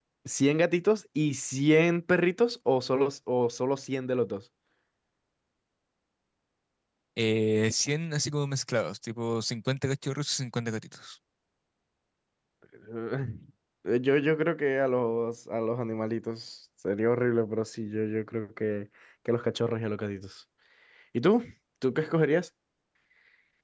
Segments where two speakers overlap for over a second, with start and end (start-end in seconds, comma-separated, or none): none